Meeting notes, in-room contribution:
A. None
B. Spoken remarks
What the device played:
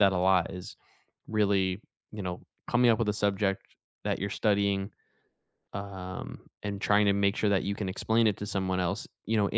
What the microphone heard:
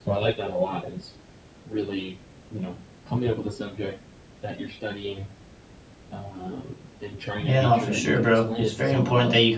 B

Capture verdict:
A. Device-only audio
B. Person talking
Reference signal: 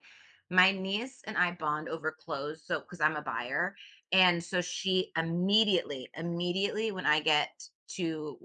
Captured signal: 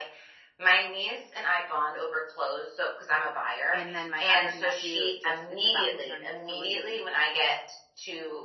B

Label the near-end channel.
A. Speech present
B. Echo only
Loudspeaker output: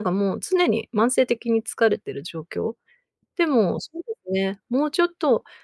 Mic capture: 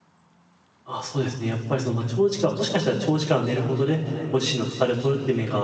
A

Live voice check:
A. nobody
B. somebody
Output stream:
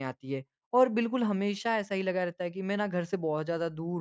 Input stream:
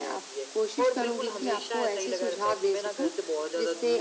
B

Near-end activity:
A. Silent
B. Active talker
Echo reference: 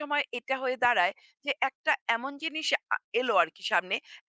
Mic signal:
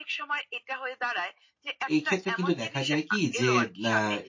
B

